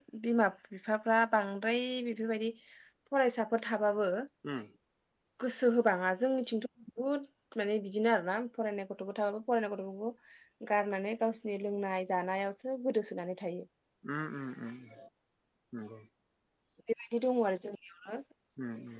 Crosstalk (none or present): none